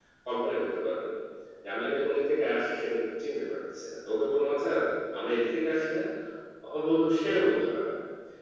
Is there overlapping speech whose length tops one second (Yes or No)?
No